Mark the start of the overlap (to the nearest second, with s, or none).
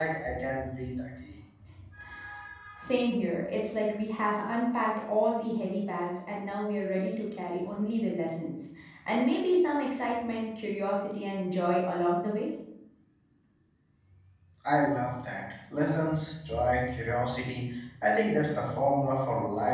none